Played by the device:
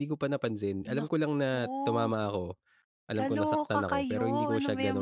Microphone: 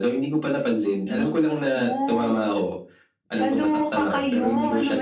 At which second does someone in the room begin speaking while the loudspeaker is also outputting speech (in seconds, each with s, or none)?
none